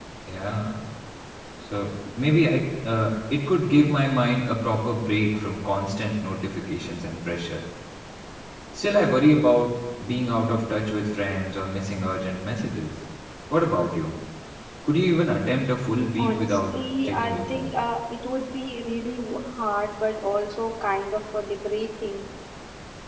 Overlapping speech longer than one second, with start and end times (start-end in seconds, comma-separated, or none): 16.2-17.8